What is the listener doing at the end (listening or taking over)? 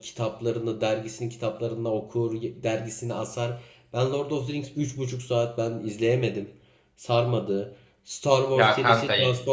taking over